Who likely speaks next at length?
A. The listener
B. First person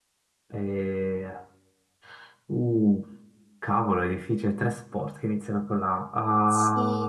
A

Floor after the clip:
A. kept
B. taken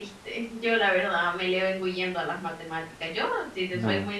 A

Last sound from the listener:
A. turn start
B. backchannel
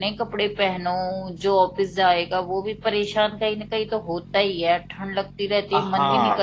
A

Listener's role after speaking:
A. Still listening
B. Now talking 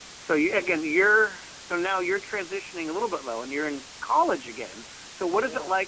A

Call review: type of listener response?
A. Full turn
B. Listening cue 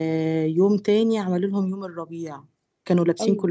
B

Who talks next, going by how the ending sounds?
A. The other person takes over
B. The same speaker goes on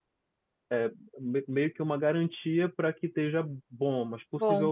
B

